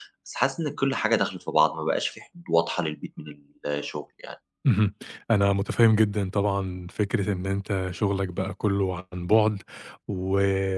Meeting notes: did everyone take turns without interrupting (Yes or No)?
Yes